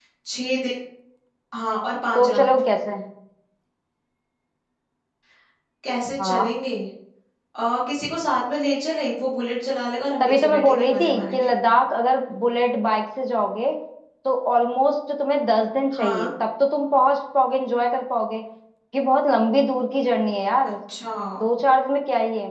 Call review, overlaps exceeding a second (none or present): present